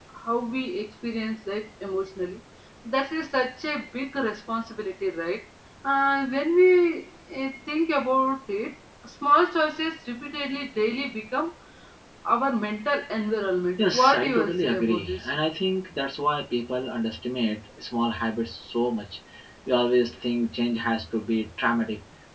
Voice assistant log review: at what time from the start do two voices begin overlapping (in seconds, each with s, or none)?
13.8 s